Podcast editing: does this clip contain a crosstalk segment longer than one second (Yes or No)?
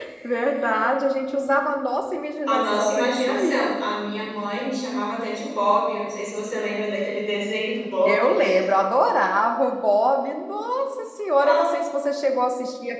Yes